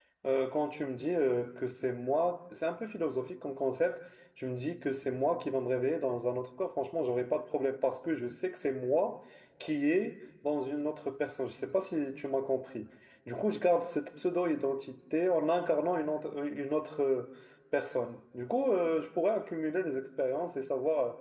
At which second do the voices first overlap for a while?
none

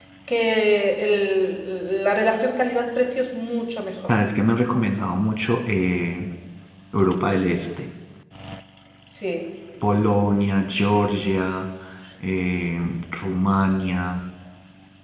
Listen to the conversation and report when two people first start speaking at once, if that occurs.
none

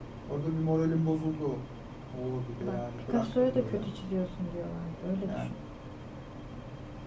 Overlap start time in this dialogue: 2.6 s

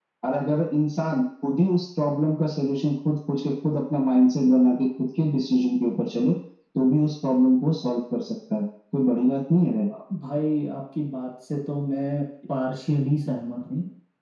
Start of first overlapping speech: none

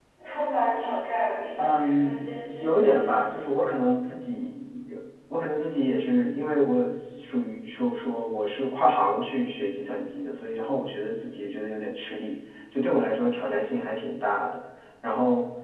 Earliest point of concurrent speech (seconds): 1.6 s

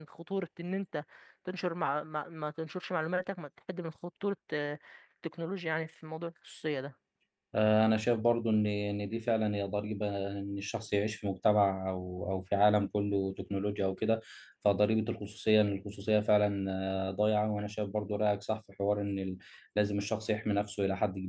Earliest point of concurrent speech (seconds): none

